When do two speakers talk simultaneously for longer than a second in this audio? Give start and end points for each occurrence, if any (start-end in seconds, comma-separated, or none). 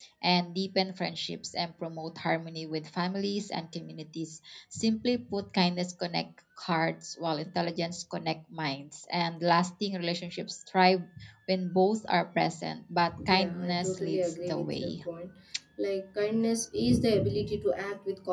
13.3-14.9